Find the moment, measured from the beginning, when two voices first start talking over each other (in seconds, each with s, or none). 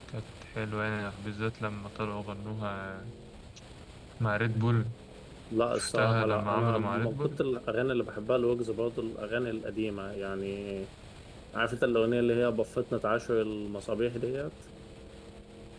5.8 s